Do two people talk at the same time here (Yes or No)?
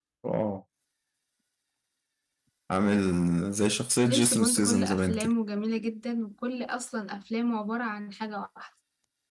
Yes